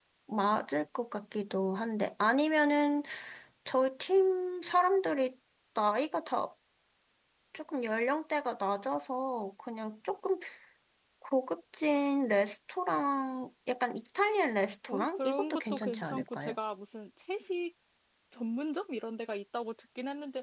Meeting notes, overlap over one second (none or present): present